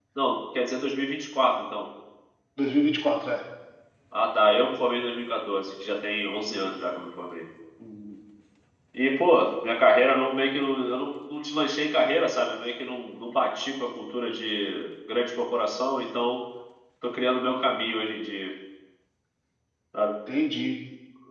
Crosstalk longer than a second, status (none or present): none